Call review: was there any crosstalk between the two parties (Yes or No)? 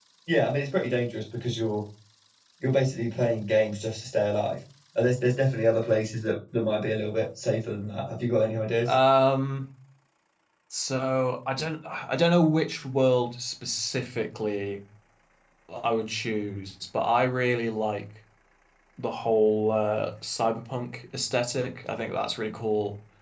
No